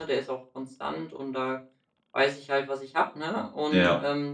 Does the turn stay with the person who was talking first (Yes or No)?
Yes